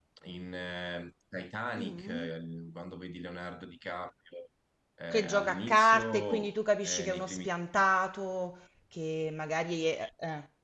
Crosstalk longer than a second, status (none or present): present